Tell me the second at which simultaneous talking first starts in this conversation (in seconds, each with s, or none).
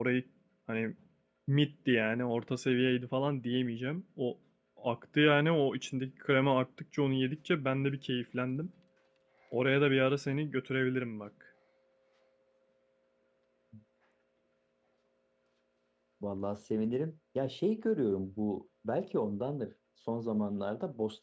none